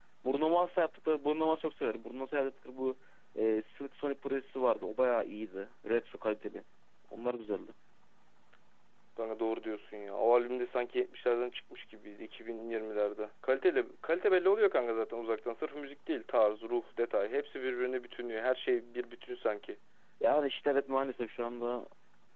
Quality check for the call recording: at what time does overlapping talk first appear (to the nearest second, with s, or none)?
none